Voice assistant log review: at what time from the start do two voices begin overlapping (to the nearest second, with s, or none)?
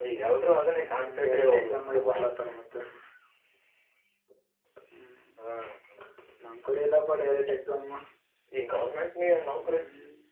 1 s